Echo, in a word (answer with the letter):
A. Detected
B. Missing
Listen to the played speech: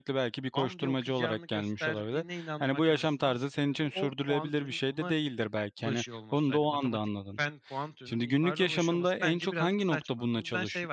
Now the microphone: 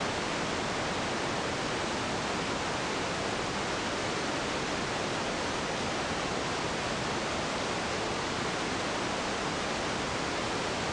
B